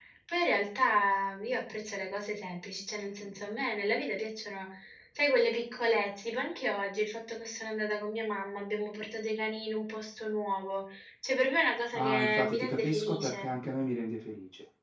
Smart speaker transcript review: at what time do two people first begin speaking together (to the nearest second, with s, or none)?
12 s